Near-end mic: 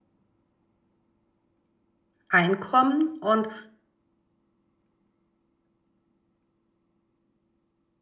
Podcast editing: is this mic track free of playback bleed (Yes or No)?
Yes